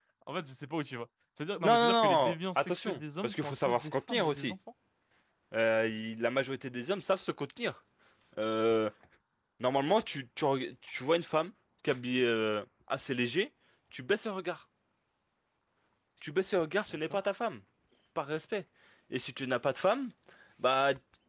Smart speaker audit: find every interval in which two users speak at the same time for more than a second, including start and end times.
1.6-4.5

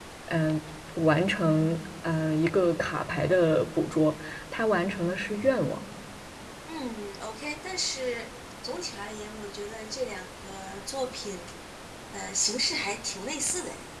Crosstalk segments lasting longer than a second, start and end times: none

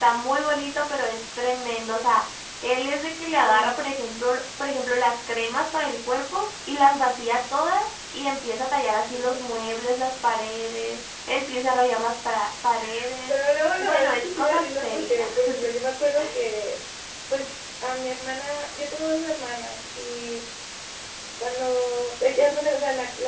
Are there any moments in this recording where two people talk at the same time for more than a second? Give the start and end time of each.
13.8-15.4

